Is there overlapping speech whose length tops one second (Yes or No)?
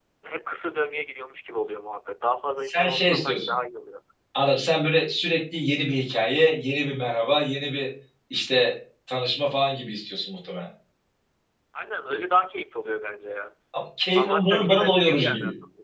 Yes